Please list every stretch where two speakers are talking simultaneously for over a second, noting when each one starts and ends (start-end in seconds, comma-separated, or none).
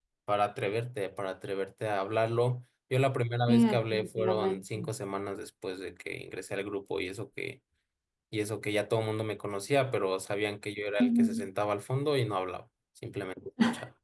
3.5-4.9